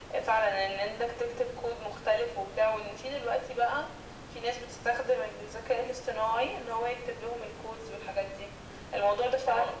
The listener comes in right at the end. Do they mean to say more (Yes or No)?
No